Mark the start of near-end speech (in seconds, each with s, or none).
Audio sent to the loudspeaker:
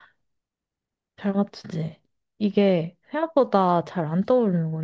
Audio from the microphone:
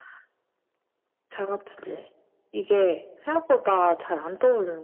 none